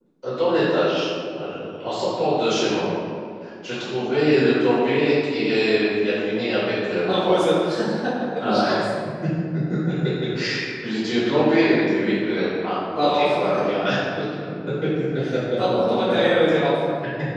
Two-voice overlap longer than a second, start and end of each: none

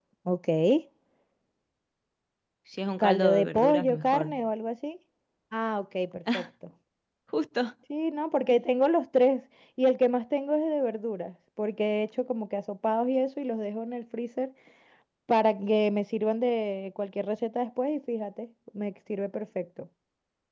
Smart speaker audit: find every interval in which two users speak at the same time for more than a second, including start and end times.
3.0-4.3

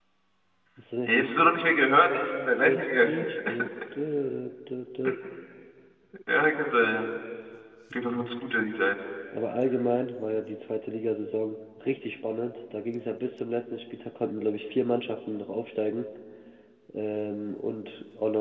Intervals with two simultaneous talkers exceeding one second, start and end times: none

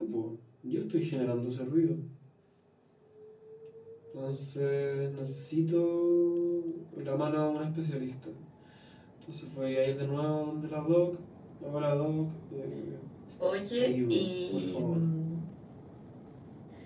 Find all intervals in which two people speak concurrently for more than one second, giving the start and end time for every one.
13.8-15.0

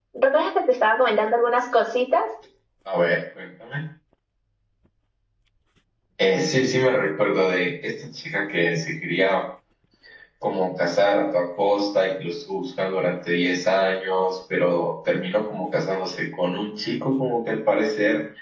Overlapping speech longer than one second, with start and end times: none

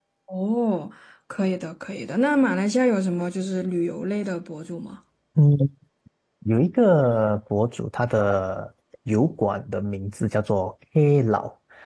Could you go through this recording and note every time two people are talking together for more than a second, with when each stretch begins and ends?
none

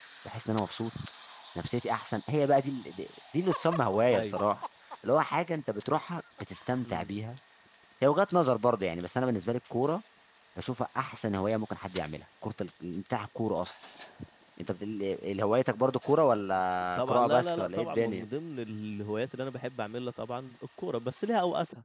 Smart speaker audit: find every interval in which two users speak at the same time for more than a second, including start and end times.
17.0-18.2

